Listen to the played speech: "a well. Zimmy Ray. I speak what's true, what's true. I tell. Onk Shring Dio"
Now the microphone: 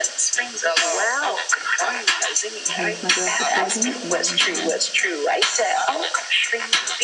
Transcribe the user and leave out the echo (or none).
I'm here with my girl supporting. And uh,